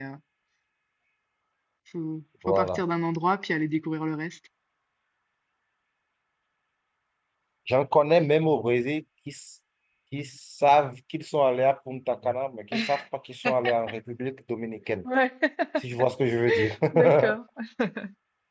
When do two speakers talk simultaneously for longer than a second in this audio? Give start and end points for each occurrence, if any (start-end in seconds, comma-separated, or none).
none